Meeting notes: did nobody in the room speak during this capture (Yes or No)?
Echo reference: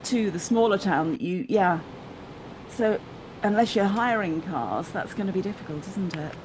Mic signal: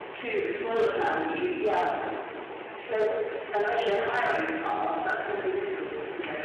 Yes